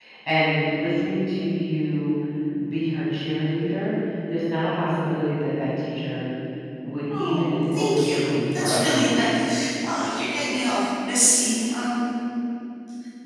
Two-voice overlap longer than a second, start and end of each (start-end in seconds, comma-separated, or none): 7.1-9.2